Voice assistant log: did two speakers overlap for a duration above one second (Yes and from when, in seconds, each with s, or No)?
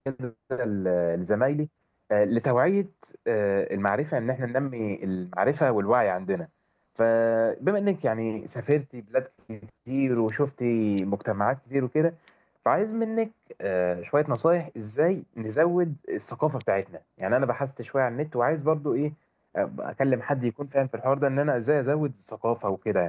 No